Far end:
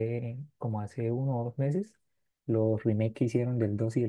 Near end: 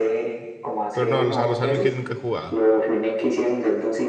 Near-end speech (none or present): present